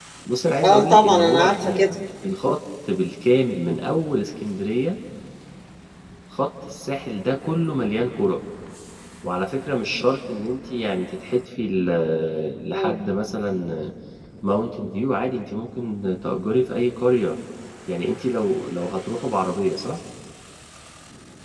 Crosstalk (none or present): present